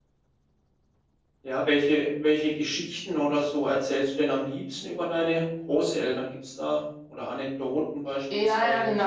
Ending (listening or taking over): taking over